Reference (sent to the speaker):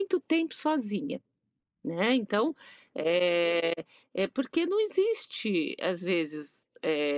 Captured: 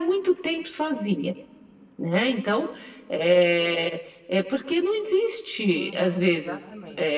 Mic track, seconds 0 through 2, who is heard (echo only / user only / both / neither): echo only